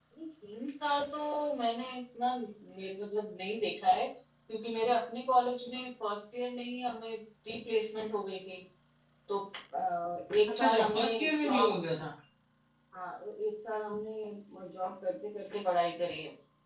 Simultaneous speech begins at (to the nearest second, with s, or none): 10 s